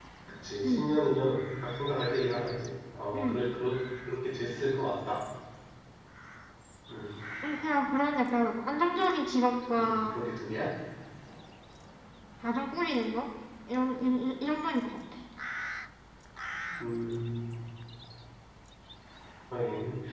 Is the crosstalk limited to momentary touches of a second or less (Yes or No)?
Yes